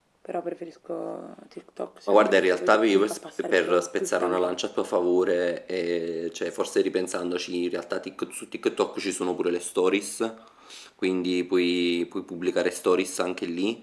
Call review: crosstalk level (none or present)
present